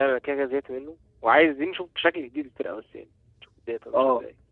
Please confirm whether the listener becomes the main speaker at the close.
Yes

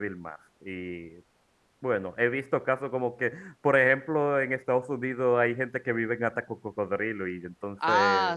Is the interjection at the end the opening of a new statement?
Yes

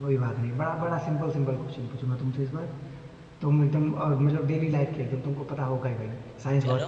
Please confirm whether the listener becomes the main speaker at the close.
No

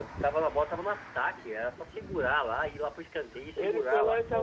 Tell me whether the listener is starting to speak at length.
Yes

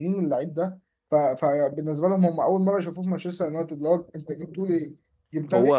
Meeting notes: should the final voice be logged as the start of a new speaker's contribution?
No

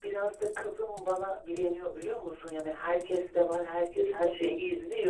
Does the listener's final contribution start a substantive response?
No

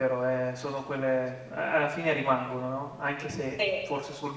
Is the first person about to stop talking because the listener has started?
No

